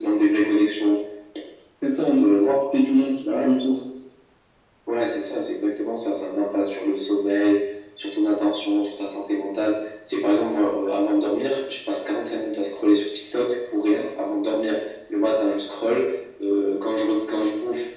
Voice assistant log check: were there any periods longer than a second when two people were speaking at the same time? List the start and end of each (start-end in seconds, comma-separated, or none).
none